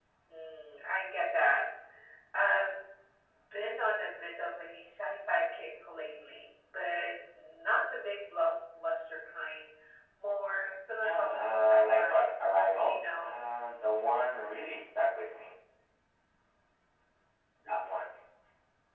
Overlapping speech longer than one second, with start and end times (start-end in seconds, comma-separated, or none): 11.0-12.2